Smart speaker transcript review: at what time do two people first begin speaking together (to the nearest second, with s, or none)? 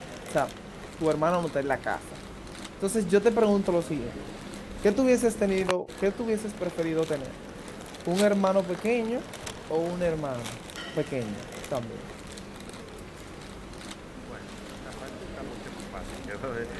none